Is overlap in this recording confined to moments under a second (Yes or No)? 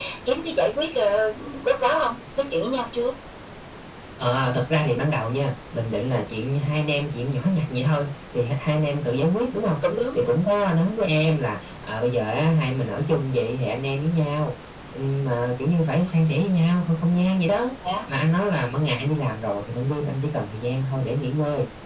Yes